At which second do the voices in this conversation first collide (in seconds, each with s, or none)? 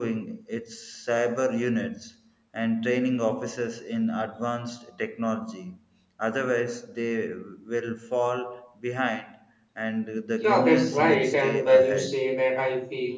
10.4 s